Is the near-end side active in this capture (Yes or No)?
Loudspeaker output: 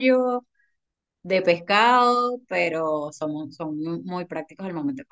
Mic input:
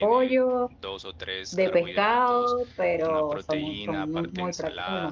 Yes